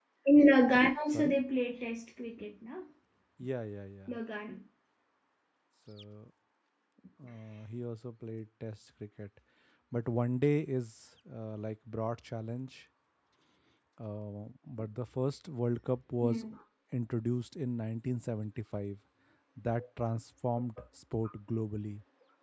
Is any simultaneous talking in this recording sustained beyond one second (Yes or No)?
No